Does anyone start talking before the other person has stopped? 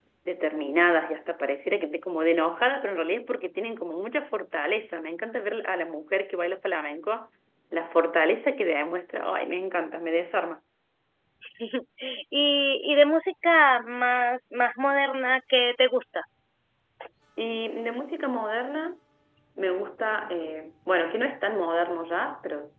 No

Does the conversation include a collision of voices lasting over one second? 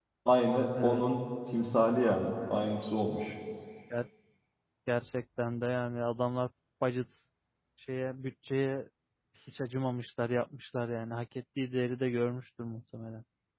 No

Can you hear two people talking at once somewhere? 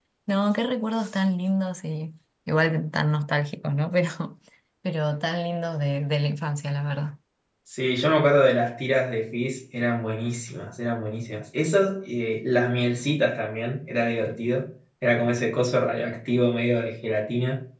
No

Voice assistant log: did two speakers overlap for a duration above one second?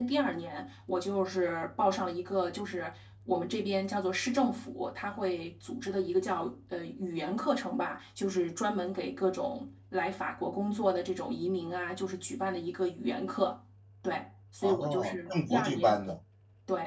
Yes, from 14.6 s

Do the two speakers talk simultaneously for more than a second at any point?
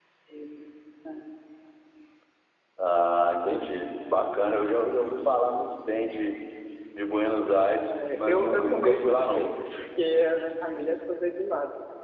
Yes, from 7.9 s

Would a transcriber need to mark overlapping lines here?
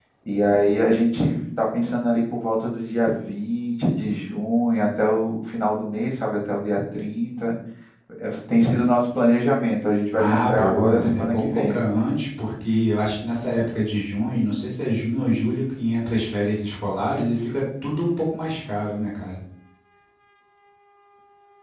Yes, from 10.2 s

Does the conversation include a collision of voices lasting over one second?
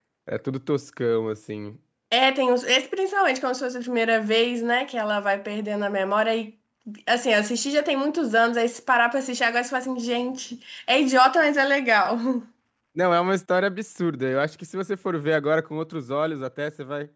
No

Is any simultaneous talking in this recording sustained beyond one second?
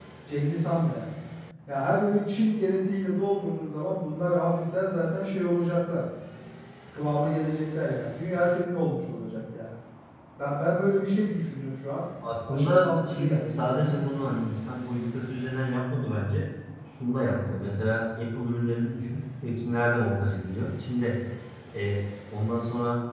Yes, from 12.5 s

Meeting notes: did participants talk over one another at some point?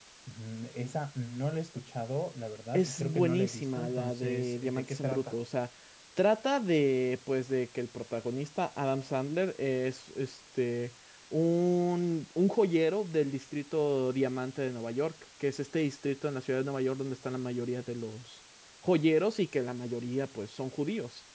Yes, from 2.7 s

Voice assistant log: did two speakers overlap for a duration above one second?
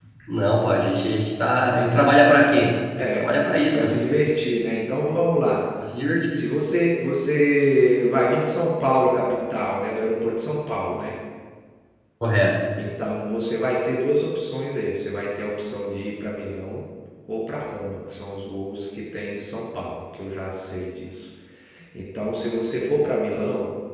No

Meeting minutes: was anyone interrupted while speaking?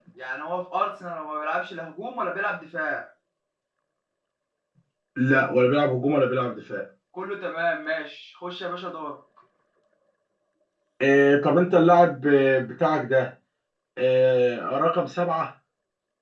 No

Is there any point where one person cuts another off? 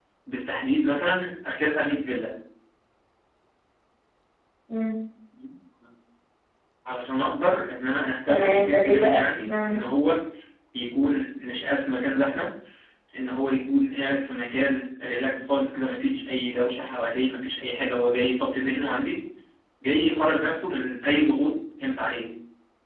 Yes, from 8.3 s

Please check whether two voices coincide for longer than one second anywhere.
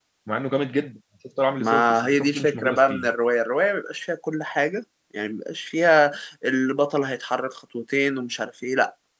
Yes, from 1.6 s

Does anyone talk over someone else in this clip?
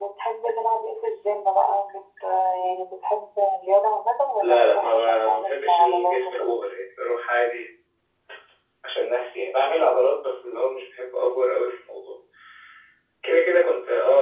Yes, from 4.4 s

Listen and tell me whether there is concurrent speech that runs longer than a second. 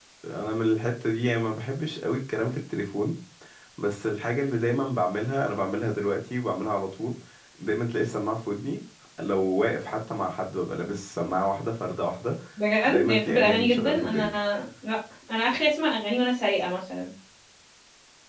Yes, from 13.1 s

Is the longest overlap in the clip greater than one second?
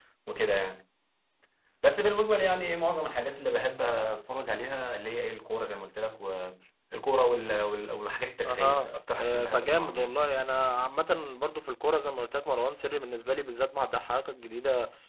Yes, from 8.4 s

